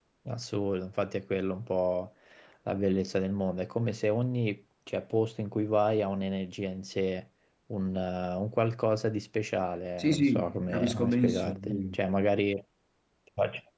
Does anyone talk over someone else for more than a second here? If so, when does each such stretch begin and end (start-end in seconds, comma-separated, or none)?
10.0-12.0